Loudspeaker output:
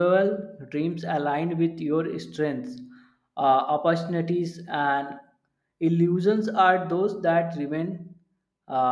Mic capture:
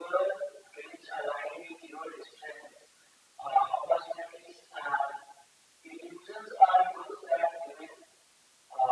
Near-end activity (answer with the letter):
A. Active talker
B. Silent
B